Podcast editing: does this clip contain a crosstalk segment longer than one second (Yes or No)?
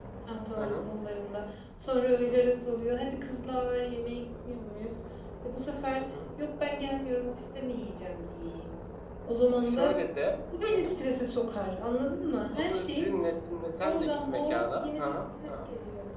Yes